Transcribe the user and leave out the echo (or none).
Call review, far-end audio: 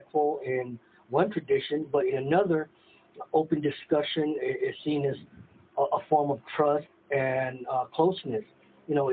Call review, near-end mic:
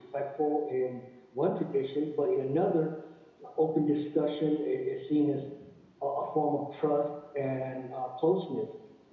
none